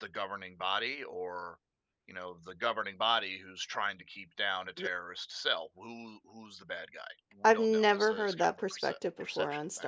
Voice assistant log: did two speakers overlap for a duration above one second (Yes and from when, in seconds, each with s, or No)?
Yes, from 7.4 s